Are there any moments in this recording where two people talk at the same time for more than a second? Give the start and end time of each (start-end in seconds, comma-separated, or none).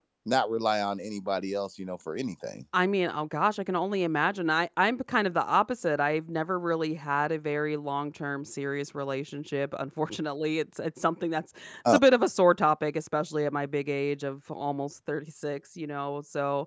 none